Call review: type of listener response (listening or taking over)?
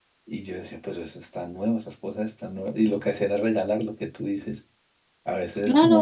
listening